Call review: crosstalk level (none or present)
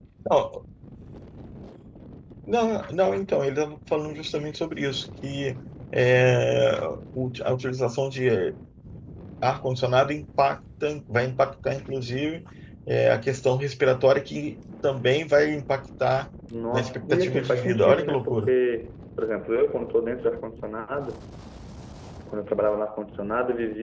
present